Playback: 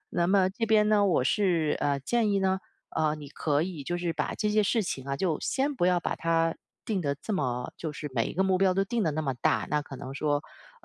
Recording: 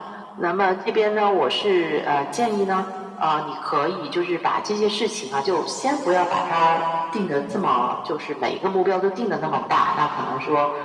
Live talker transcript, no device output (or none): none